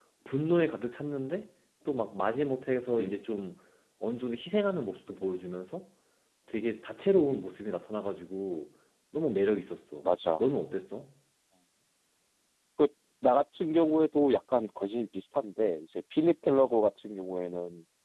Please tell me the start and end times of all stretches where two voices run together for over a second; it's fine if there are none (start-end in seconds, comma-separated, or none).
none